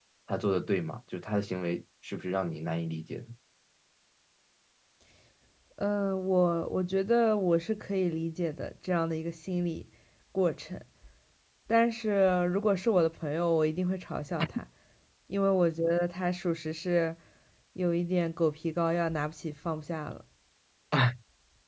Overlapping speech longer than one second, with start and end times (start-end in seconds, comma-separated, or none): none